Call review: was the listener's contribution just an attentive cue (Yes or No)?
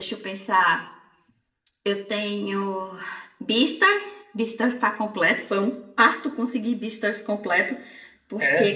Yes